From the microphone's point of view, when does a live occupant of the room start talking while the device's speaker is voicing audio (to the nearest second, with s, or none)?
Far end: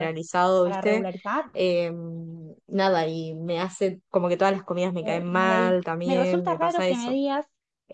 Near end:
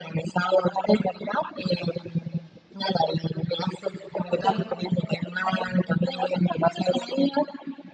4 s